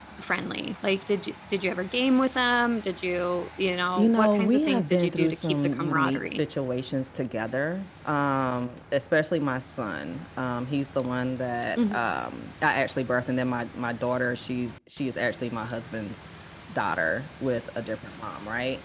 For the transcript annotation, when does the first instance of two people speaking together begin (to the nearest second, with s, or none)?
4 s